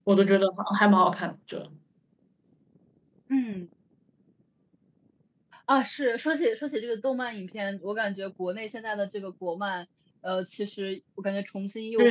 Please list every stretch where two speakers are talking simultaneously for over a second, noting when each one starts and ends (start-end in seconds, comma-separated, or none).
none